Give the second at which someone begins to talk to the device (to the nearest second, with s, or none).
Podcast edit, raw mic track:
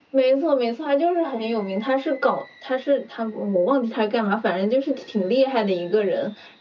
none